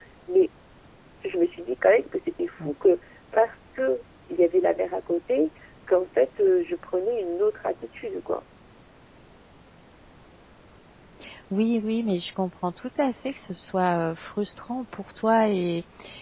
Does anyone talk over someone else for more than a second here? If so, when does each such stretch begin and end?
none

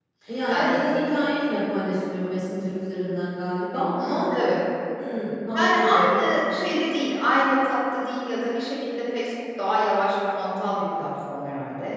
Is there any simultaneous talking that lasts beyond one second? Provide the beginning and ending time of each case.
none

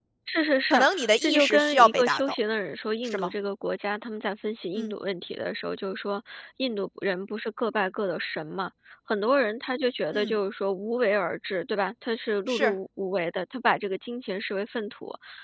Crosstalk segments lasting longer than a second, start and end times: 0.7-2.2

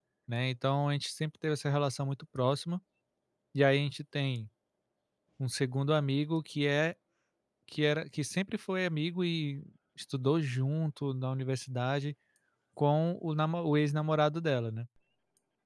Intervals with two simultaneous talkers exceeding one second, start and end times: none

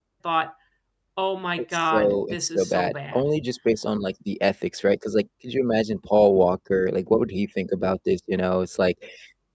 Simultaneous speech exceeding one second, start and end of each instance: 1.6-3.3

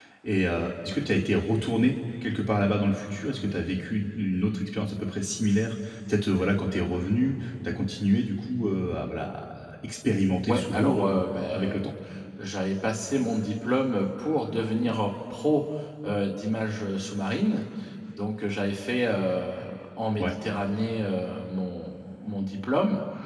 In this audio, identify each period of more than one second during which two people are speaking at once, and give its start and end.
10.5-11.9

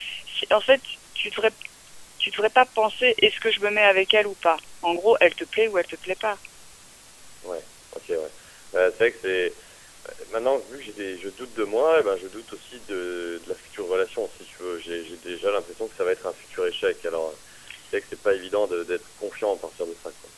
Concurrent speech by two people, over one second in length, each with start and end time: none

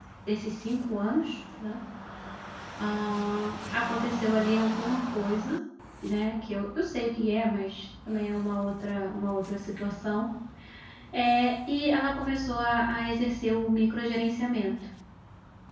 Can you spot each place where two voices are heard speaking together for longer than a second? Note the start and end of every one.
none

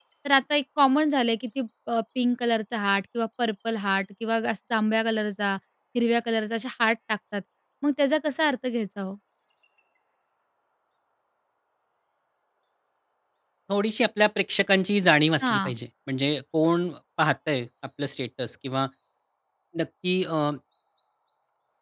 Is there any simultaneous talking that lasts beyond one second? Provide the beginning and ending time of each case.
none

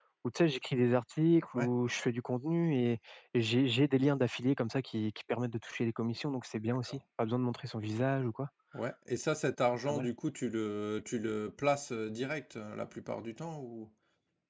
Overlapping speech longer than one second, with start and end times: none

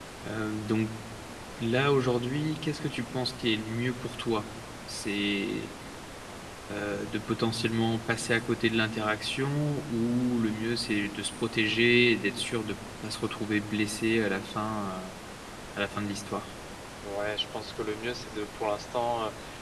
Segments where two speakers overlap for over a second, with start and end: none

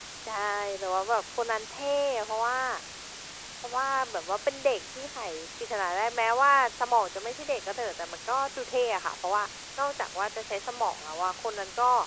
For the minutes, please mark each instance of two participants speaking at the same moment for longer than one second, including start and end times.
none

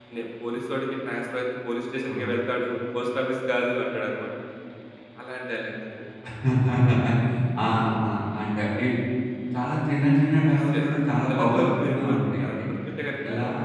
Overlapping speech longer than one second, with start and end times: 11.3-12.6

